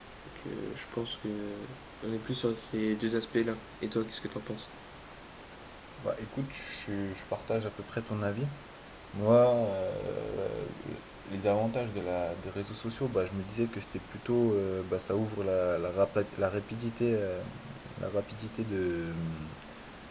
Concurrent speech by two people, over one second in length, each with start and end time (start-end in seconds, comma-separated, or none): none